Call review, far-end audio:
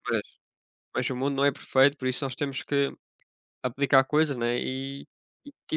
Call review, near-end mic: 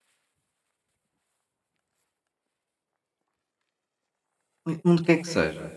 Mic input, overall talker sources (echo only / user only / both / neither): user only